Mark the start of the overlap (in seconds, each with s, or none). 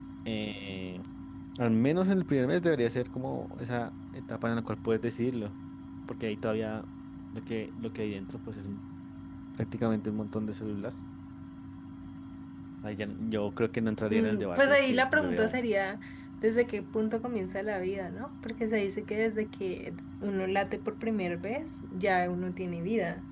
14.1 s